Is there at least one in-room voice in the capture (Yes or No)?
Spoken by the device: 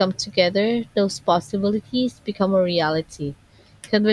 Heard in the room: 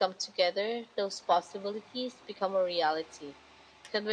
No